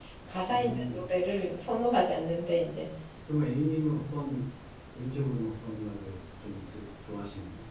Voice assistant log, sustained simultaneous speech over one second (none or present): none